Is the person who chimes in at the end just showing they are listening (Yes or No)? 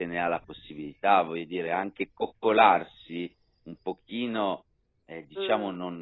Yes